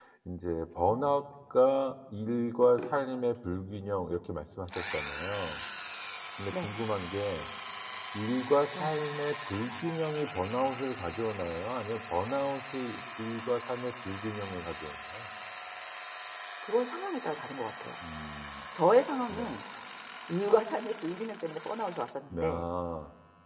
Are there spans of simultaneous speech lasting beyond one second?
No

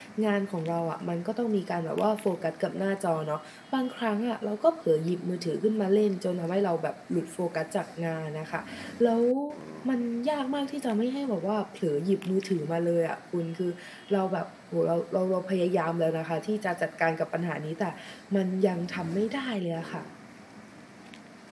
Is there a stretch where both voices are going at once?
No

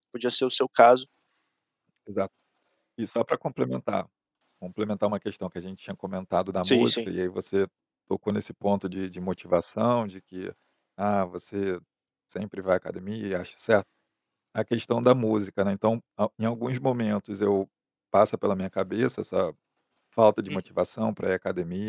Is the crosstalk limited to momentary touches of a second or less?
Yes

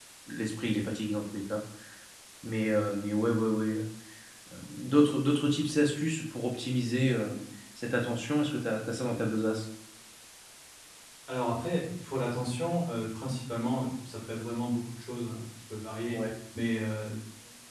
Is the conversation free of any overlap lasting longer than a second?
Yes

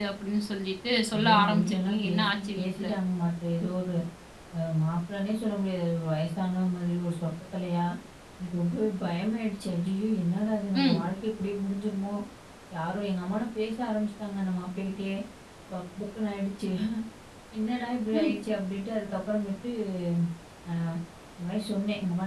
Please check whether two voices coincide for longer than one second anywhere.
Yes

